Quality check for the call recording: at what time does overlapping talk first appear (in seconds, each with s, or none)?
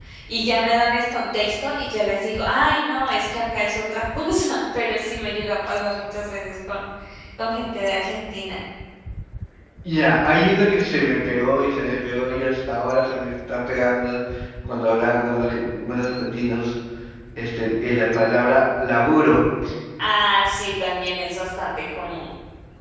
none